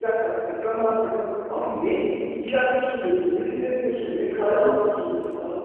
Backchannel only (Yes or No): Yes